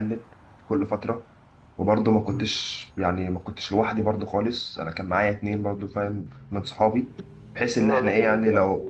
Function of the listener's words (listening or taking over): taking over